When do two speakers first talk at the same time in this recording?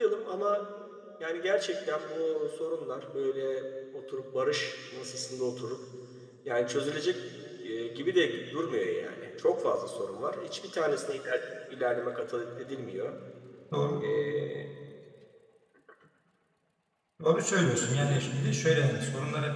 none

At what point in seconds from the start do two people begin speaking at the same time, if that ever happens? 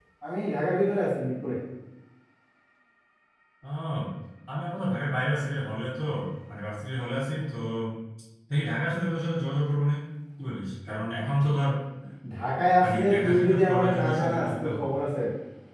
13 s

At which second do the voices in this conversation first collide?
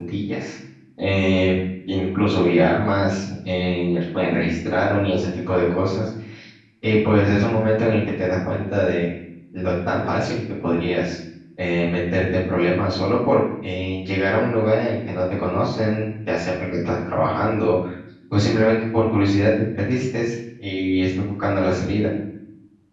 none

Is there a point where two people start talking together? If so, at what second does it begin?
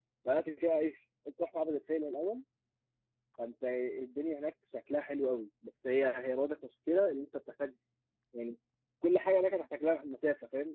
none

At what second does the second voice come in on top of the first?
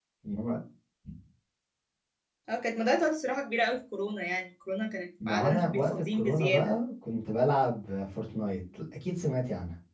5 s

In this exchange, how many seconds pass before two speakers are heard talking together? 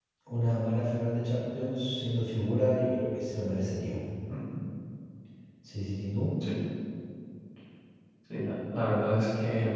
none

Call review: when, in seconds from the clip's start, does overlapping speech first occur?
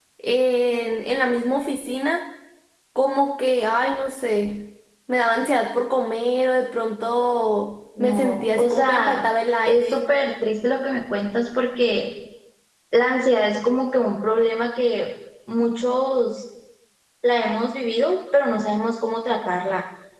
8 s

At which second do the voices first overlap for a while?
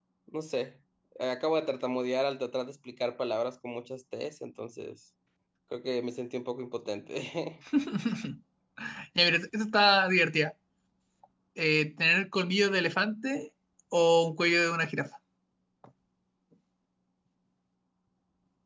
none

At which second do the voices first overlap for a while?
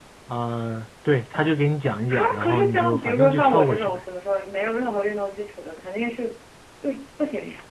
2 s

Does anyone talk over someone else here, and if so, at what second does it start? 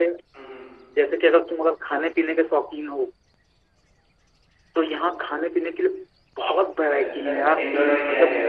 7 s

